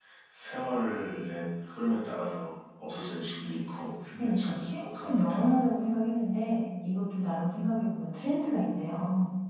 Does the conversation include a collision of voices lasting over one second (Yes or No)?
Yes